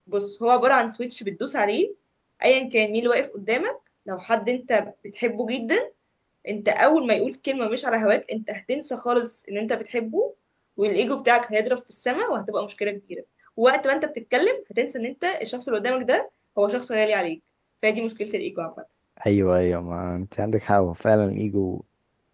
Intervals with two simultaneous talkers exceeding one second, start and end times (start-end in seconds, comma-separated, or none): none